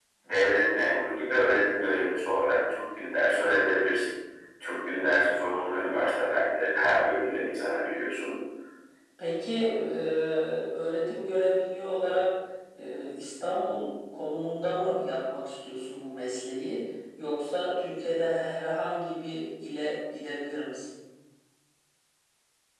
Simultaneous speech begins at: none

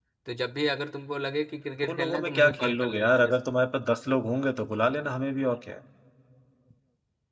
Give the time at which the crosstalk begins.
1.8 s

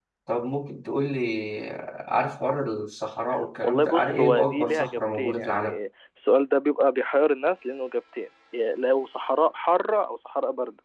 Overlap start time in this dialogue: 3.6 s

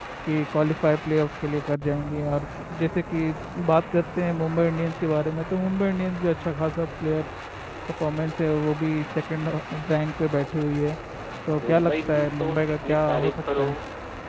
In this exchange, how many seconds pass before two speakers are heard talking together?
11.6 s

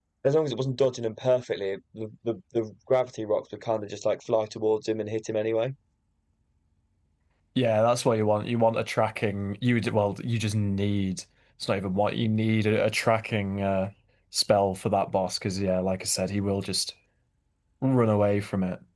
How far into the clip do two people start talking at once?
none

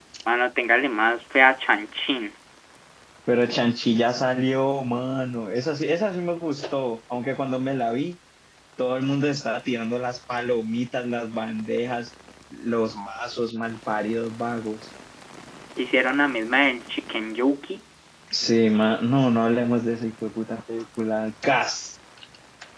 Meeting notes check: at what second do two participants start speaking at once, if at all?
none

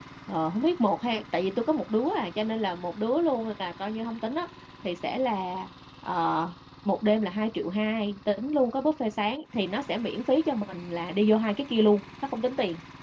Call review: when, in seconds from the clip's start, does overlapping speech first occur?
none

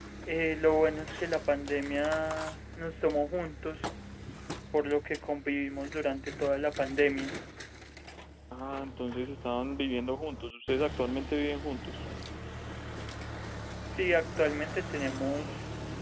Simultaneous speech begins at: none

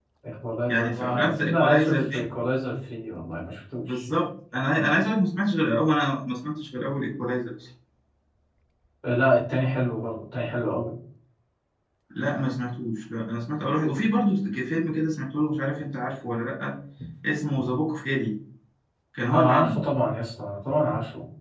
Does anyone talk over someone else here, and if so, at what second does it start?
0.7 s

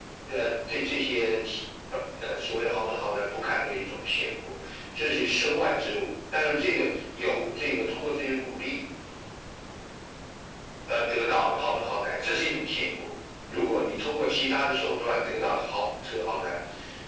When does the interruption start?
none

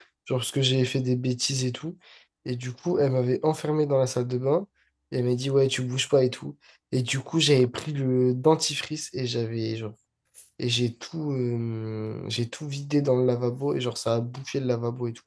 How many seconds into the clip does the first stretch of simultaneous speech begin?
none

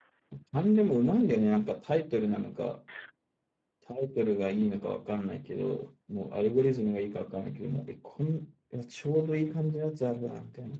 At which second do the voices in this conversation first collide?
none

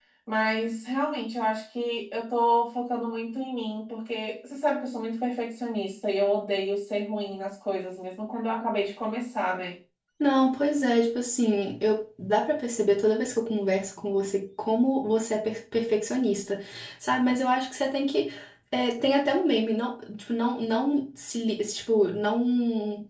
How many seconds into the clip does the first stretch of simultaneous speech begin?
none

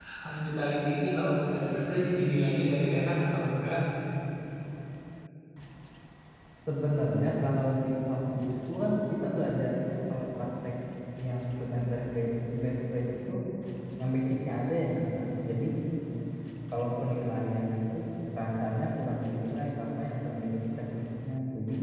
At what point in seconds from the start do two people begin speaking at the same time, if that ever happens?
none

